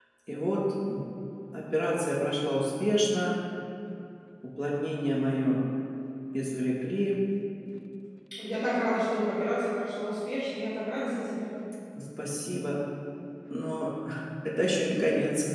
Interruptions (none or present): none